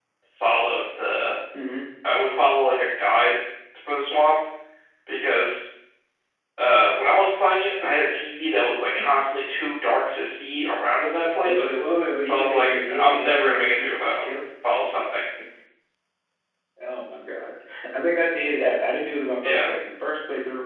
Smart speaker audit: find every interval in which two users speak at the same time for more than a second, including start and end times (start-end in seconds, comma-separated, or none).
12.2-14.2